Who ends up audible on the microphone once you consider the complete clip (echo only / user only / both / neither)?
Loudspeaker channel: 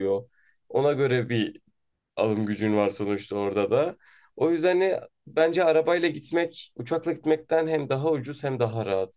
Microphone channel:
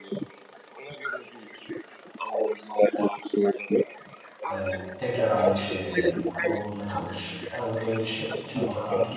both